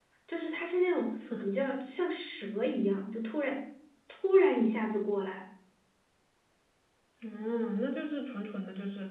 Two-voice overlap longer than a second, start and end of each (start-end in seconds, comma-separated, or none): none